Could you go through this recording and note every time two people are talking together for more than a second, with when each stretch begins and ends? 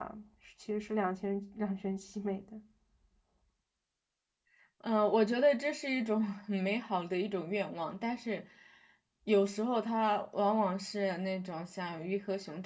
none

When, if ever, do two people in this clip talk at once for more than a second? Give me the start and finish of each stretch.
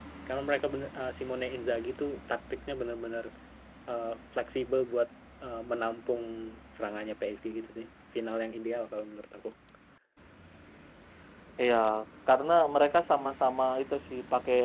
none

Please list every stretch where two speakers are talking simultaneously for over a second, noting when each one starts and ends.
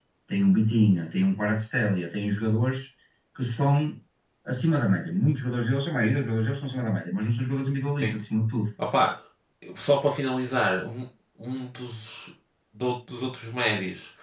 none

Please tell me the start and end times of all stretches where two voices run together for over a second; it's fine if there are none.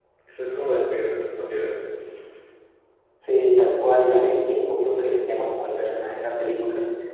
none

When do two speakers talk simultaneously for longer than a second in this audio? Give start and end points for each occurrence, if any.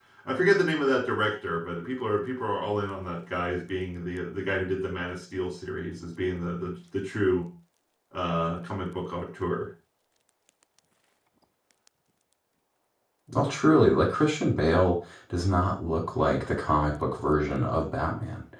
none

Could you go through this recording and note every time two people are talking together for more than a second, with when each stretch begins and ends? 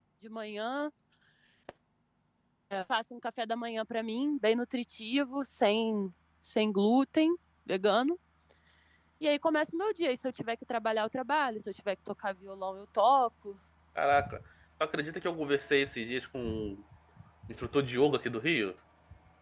none

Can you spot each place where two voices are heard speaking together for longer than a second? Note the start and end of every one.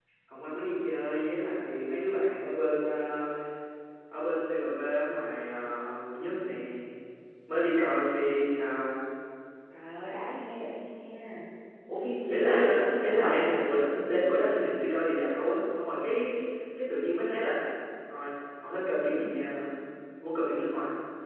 12.3-13.5

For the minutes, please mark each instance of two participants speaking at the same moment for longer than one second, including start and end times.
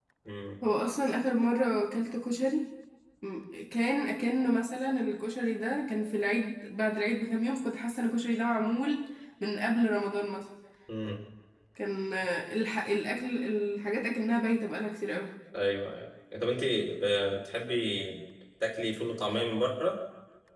none

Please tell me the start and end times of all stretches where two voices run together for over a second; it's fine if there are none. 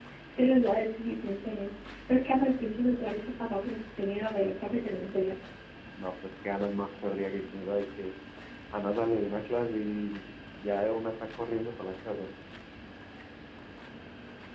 none

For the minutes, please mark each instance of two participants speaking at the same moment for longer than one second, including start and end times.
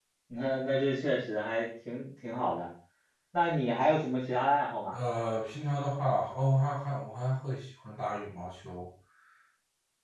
none

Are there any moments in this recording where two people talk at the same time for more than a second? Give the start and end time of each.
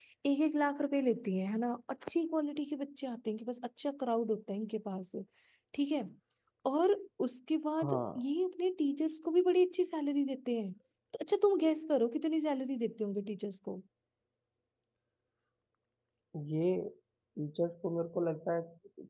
none

